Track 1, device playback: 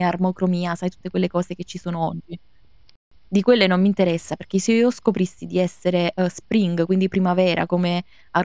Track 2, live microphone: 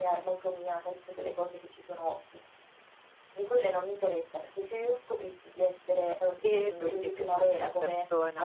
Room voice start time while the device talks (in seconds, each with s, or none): 6.4 s